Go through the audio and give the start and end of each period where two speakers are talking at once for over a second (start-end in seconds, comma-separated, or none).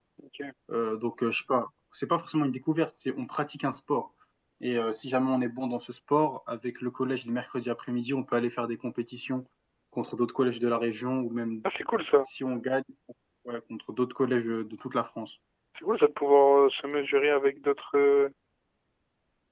none